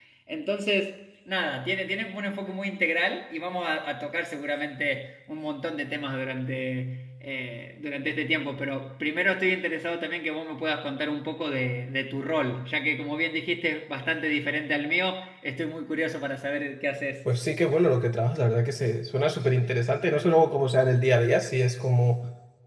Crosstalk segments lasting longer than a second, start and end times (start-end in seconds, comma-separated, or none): none